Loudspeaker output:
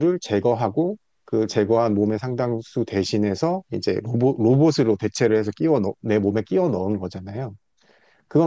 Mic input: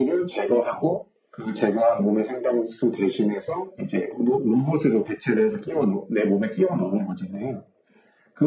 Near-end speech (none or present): none